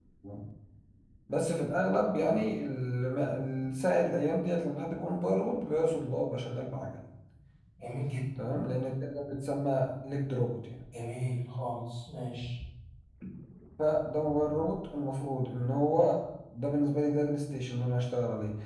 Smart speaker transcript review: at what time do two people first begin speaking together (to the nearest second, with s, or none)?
none